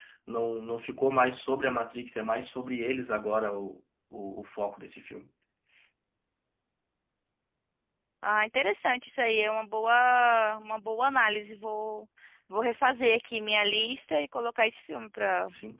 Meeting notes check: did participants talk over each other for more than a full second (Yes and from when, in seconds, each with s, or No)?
No